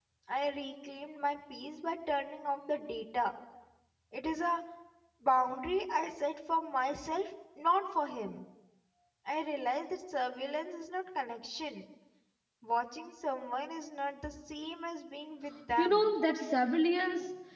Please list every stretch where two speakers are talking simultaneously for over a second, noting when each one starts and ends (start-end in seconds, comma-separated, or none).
none